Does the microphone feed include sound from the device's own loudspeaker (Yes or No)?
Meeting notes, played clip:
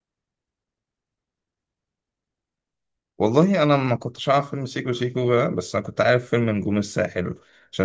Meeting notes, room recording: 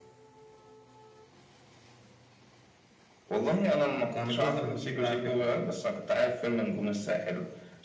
Yes